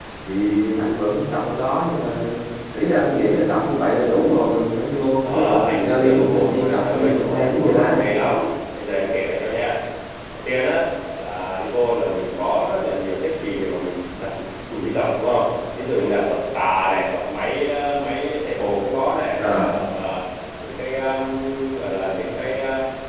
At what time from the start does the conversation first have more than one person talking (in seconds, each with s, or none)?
5.2 s